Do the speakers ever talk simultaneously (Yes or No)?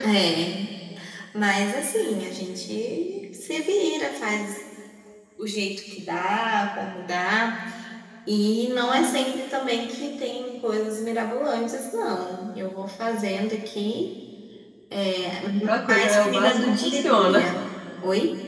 Yes